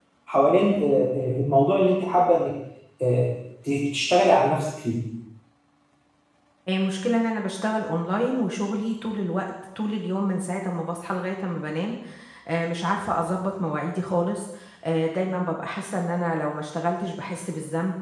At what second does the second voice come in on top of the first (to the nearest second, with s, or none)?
none